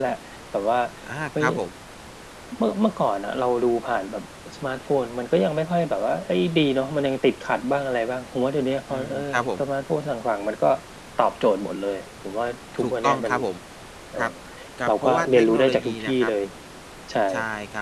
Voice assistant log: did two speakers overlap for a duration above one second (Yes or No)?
Yes